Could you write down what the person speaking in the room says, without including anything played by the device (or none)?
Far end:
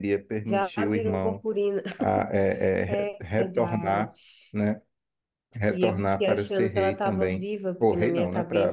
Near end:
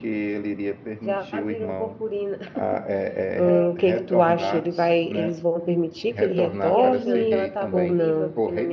Hum, o que é que tu acha? Ele vai, eles vão permitir que ele retorne ou não?